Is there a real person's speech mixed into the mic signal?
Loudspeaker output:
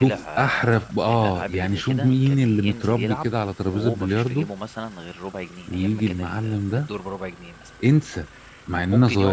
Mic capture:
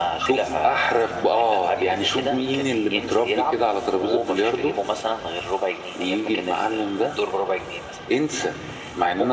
No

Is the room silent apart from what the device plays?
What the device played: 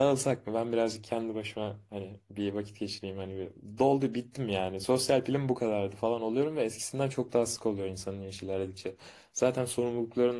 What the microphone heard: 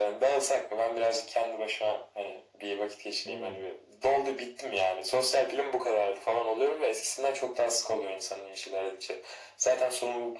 No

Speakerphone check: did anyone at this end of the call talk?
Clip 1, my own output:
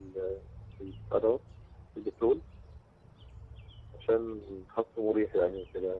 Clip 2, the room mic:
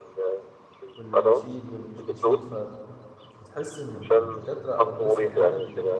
Yes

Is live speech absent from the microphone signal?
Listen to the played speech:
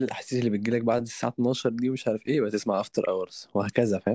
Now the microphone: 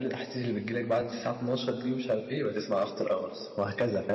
Yes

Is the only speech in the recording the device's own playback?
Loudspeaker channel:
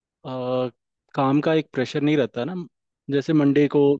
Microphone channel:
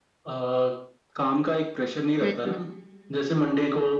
No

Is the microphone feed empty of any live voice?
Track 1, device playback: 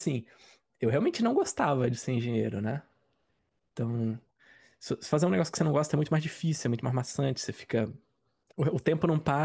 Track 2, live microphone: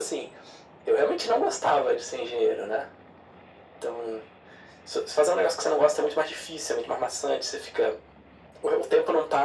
Yes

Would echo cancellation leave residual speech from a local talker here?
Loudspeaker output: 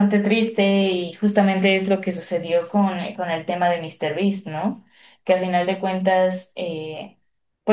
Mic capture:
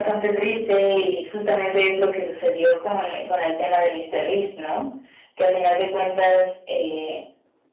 No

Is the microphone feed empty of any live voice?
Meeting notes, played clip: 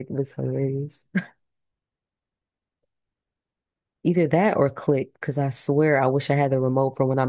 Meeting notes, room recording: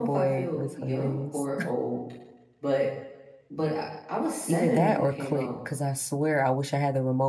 No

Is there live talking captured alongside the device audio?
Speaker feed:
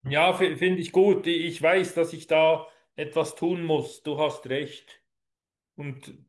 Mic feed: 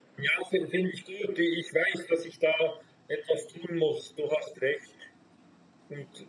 No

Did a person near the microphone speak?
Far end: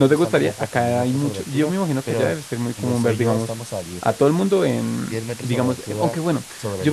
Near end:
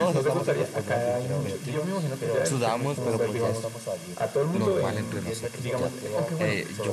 Yes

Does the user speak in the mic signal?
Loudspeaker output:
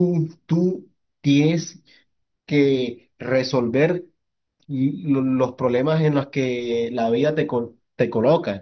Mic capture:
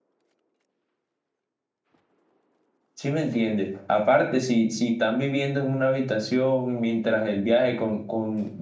Yes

